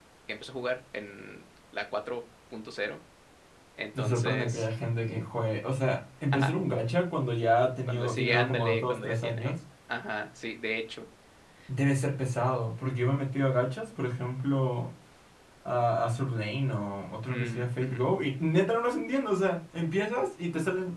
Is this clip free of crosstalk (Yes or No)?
No